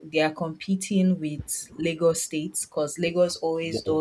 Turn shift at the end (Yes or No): No